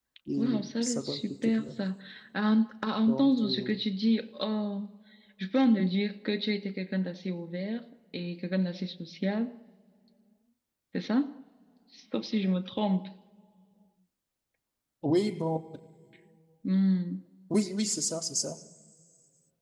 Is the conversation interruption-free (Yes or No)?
No